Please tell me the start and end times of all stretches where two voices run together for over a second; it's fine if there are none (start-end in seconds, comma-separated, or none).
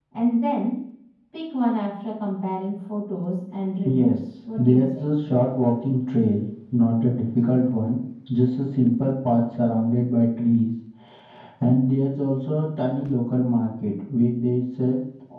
3.8-5.1